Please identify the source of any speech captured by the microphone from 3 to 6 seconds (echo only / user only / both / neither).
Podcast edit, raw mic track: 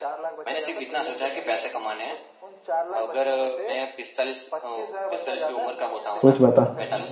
echo only